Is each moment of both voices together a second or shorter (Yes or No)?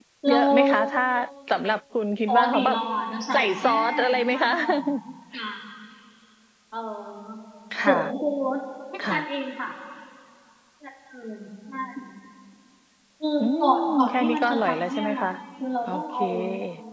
No